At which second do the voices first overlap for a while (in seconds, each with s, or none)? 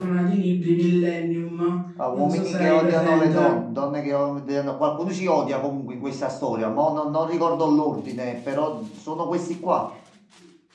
2.1 s